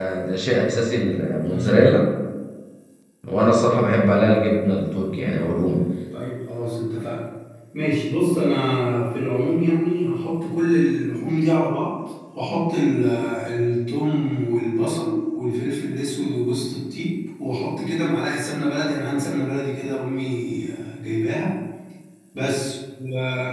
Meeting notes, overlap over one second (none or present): none